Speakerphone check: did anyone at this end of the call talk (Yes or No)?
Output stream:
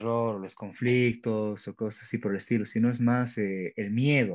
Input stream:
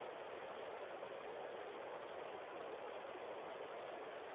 No